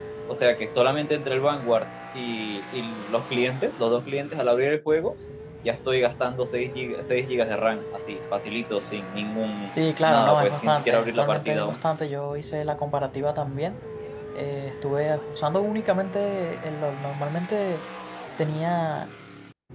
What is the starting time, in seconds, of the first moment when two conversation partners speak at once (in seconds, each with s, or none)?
9.8 s